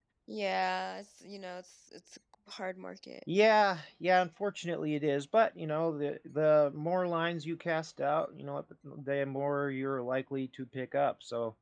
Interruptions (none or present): none